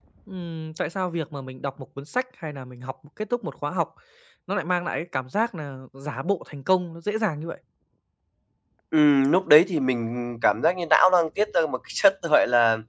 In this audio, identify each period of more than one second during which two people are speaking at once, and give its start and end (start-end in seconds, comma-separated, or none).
none